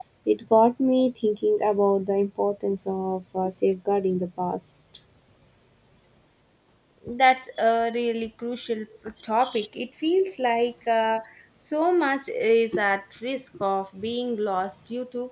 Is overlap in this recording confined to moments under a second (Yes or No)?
Yes